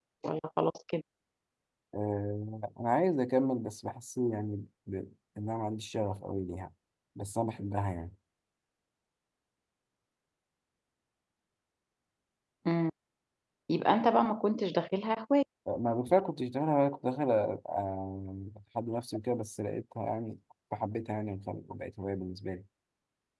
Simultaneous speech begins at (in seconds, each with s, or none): none